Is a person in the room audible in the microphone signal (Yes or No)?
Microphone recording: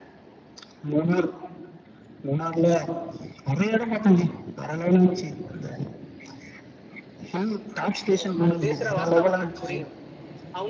Yes